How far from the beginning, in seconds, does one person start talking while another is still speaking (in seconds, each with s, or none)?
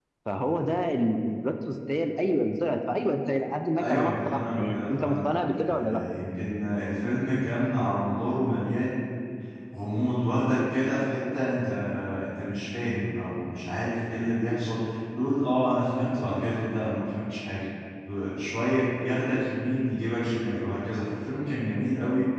3.8 s